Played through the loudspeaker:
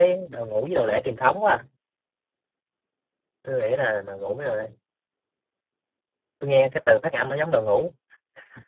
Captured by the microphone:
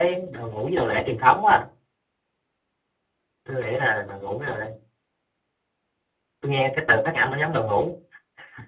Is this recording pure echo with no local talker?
Yes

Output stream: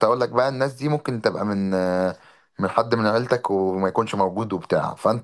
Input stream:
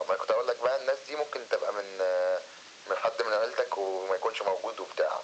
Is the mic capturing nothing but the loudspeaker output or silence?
Yes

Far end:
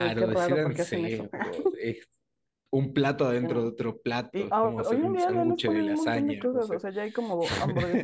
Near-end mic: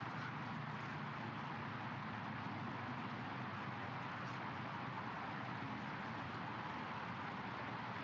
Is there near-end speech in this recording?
No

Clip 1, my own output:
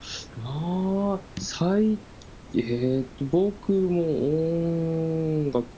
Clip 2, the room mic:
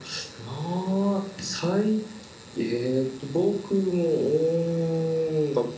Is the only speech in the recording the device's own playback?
Yes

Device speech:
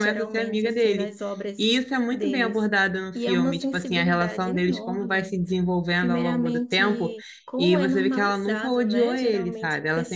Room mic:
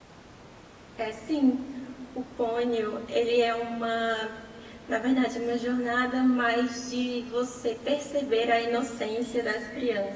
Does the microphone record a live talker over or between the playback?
Yes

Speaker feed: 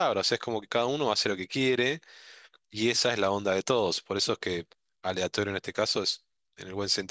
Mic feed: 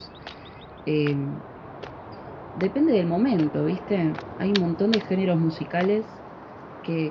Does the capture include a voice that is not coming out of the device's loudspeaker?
Yes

